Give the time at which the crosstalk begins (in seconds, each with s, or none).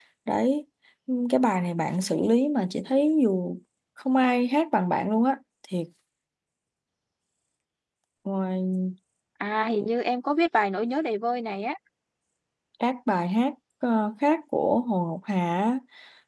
none